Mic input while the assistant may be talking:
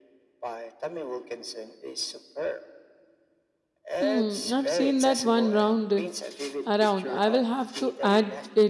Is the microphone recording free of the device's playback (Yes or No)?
No